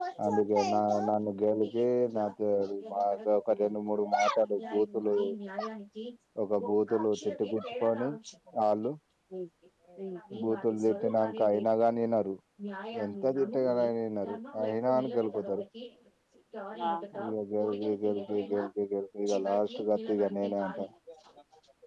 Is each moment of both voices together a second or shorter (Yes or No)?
No